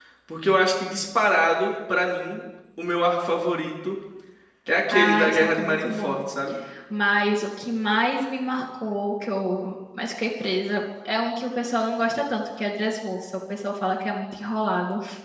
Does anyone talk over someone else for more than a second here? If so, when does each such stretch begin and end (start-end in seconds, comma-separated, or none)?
4.9-6.2